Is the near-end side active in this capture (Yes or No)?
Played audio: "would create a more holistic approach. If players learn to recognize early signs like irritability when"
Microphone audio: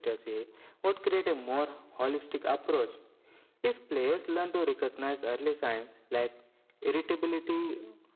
No